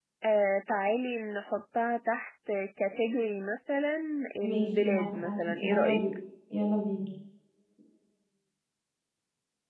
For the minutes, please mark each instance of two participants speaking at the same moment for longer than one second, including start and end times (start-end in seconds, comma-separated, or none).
4.4-6.0